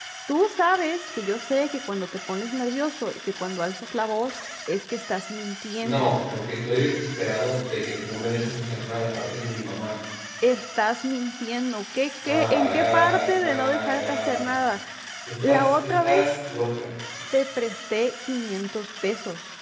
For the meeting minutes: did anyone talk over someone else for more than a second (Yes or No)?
Yes